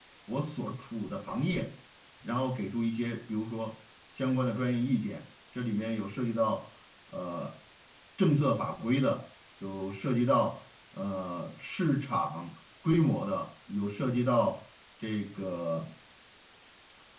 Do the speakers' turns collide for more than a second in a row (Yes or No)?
No